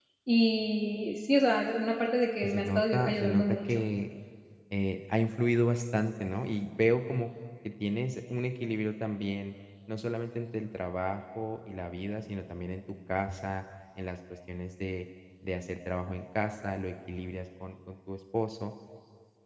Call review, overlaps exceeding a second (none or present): present